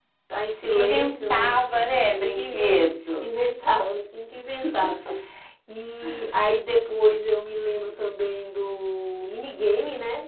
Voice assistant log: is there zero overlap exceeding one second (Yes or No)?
No